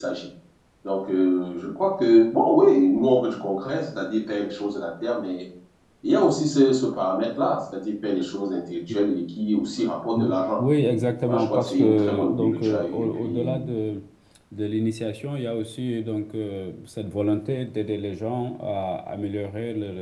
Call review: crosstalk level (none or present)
present